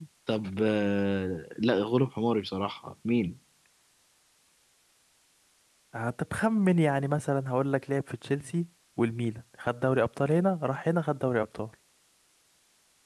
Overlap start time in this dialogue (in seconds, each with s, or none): none